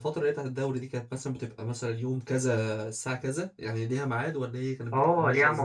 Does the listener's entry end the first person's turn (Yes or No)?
Yes